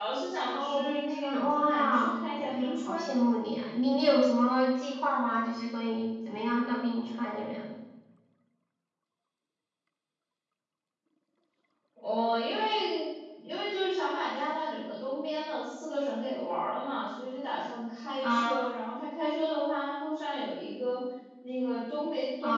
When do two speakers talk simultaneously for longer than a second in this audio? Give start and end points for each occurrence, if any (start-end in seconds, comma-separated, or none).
0.5-3.1